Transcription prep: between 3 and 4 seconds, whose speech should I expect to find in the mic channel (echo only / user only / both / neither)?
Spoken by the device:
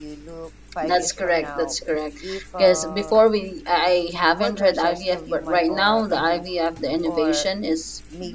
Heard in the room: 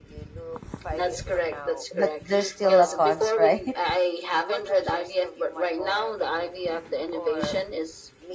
both